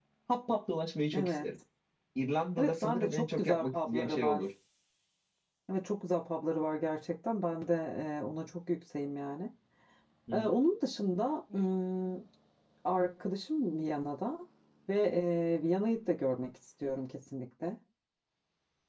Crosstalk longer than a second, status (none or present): present